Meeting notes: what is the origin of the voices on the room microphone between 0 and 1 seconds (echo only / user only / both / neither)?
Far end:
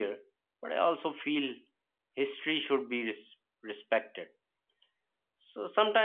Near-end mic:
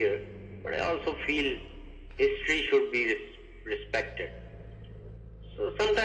echo only